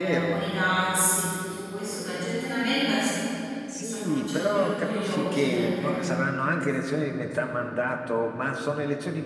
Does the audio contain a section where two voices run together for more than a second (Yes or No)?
Yes